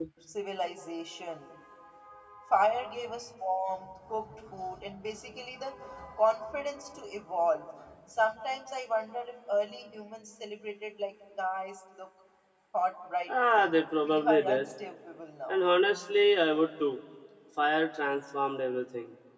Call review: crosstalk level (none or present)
present